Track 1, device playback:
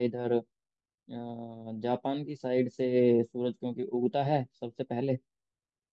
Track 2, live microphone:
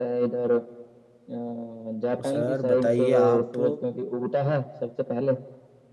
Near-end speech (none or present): present